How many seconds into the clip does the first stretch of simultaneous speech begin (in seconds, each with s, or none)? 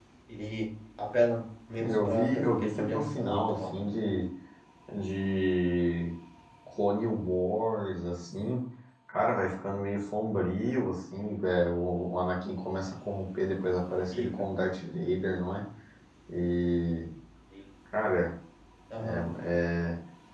1.8 s